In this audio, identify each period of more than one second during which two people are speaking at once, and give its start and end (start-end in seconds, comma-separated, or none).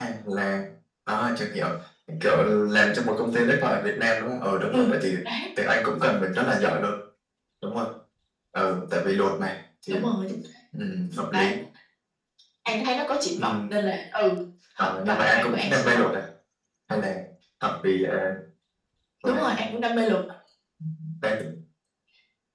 14.8-16.1